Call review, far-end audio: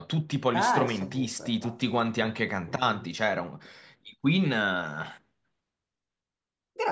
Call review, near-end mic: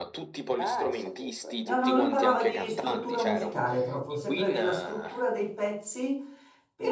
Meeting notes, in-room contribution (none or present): present